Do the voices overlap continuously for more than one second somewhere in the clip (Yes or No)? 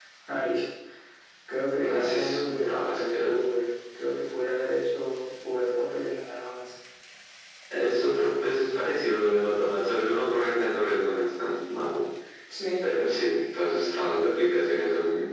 Yes